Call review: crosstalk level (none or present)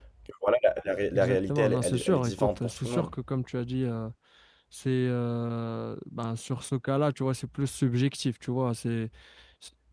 present